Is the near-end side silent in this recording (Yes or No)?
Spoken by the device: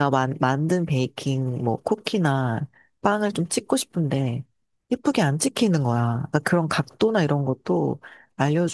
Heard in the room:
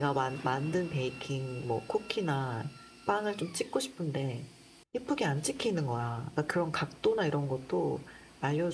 Yes